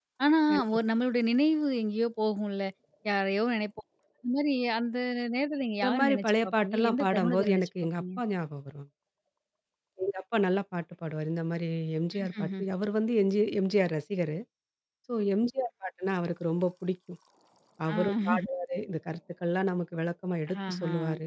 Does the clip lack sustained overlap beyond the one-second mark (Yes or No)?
No